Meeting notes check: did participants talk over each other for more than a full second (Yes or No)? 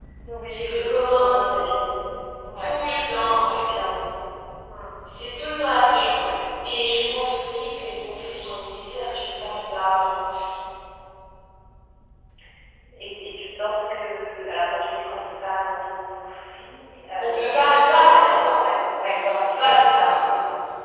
Yes